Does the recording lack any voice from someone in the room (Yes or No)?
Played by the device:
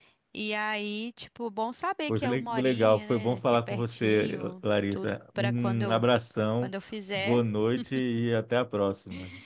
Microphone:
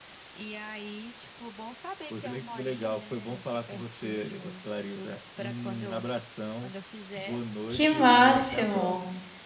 No